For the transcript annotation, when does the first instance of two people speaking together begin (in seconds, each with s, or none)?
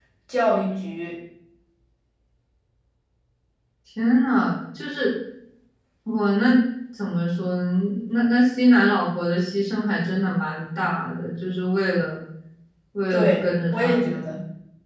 13.1 s